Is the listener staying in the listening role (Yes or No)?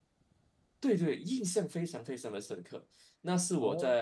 Yes